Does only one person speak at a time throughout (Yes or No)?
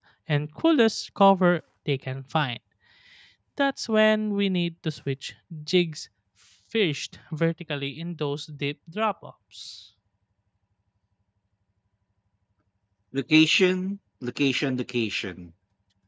Yes